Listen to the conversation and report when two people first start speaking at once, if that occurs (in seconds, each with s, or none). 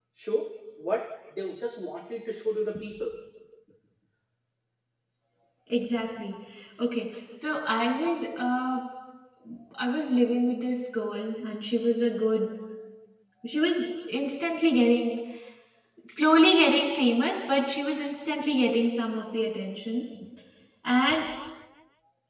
none